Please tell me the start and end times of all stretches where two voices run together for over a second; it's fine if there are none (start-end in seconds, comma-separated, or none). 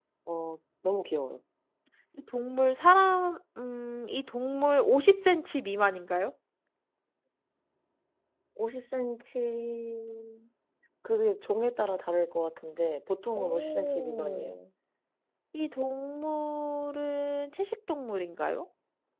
13.3-14.6